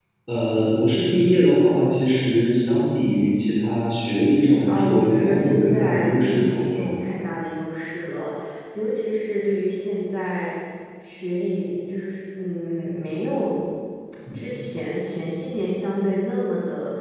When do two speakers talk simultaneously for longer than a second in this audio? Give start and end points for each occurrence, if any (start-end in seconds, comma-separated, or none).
4.7-7.0